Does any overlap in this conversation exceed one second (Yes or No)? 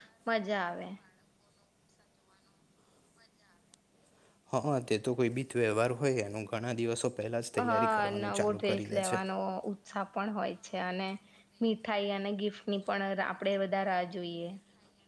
Yes